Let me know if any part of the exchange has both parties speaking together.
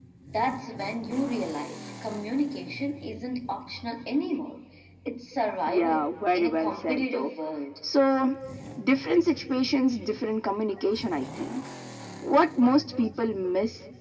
Yes, from 5.7 s

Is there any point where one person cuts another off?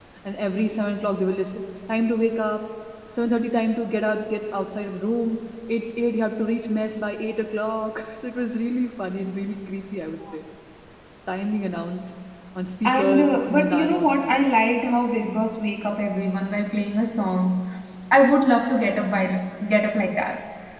Yes, from 12.8 s

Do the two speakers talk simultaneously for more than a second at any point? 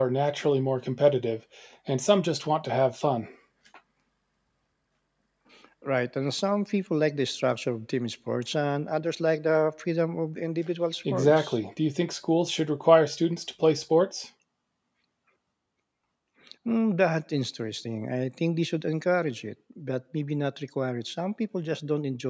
No

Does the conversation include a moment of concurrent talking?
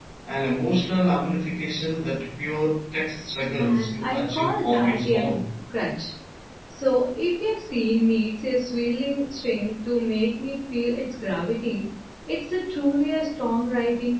Yes, from 3.6 s

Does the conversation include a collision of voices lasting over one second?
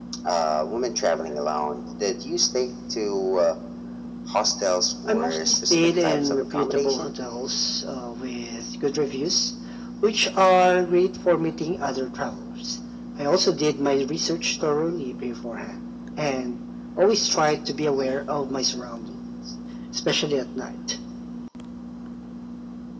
Yes, from 5.1 s

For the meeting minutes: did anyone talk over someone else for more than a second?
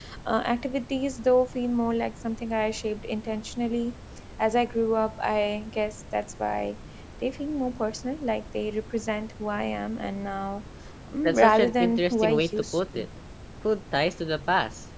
Yes, from 11.2 s

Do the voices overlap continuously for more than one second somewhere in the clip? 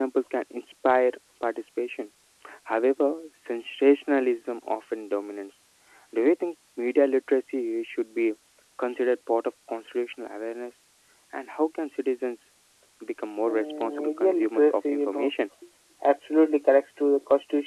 Yes, from 13.5 s

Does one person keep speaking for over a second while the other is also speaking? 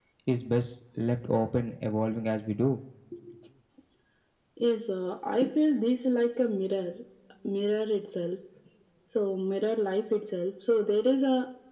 No

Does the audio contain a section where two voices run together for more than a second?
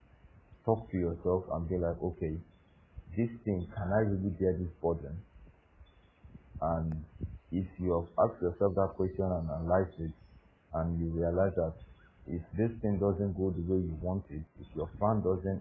No

